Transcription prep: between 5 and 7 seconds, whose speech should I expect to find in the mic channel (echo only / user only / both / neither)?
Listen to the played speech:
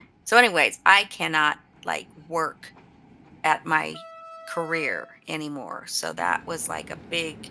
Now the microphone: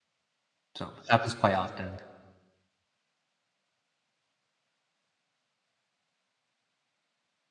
neither